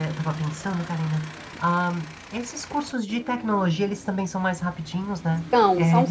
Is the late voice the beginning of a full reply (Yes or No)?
Yes